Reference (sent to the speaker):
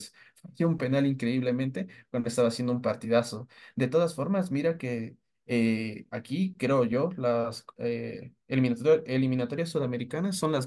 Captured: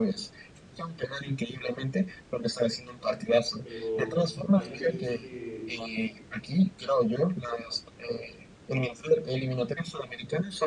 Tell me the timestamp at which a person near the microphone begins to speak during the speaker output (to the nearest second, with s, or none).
4 s